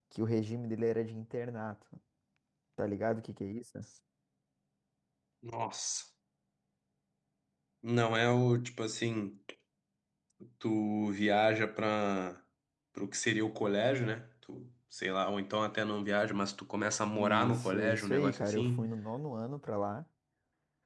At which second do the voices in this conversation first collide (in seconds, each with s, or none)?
17.2 s